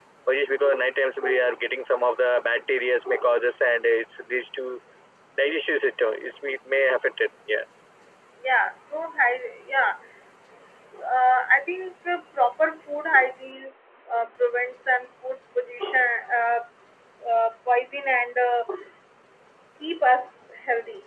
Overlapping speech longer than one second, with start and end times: none

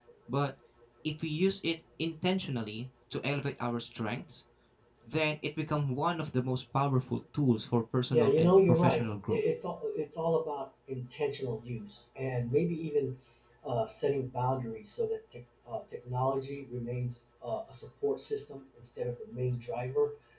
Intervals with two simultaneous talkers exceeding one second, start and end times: 8.1-9.4

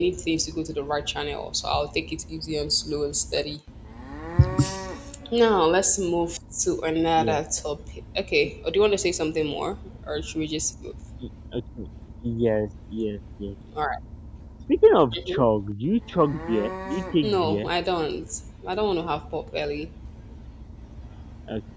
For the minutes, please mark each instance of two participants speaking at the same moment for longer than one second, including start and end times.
none

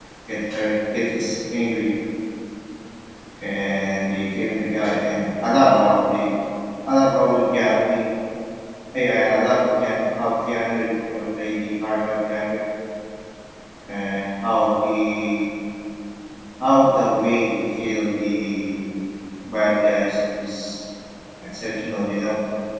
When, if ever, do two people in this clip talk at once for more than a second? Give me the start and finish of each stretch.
none

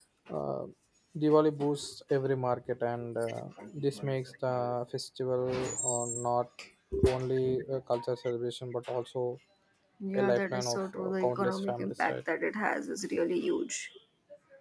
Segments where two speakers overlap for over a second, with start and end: 10.1-12.1

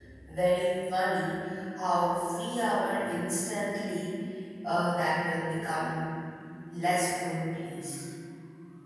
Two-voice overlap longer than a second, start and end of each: none

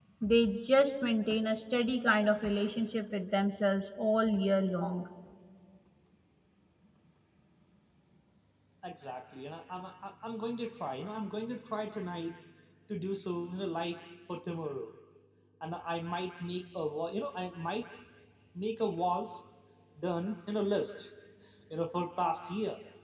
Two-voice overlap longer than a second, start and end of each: none

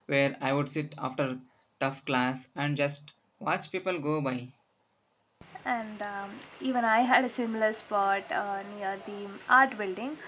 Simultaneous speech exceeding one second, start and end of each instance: none

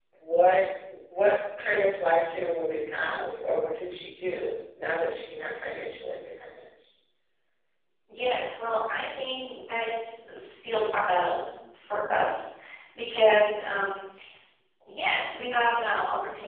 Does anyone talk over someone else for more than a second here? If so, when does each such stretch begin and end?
none

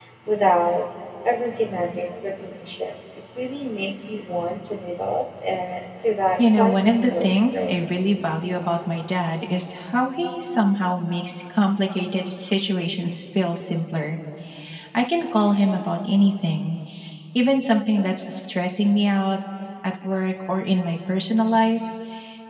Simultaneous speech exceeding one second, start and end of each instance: 6.4-7.8

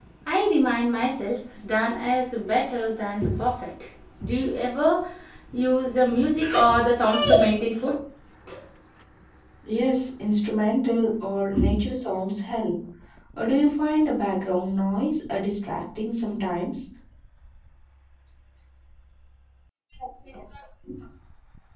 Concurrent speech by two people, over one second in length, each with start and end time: none

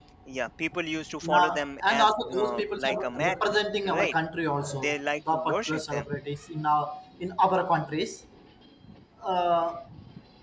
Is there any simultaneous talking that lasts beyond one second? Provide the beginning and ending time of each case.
1.2-3.4, 4.7-6.0

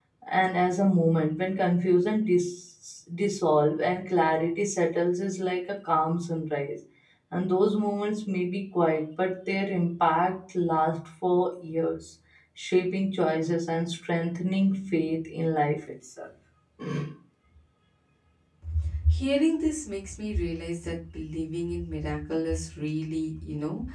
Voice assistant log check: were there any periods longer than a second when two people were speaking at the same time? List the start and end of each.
none

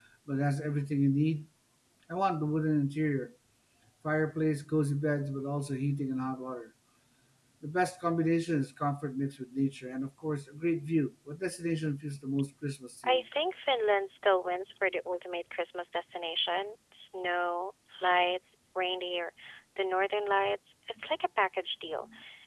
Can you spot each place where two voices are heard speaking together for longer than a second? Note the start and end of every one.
none

